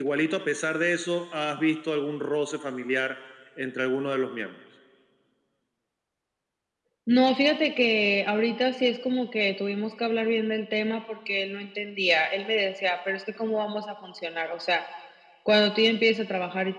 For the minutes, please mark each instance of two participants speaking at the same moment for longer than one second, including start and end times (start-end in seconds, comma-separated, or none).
none